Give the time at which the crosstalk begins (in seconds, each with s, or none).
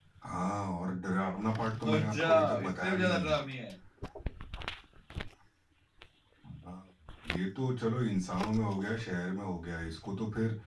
1.7 s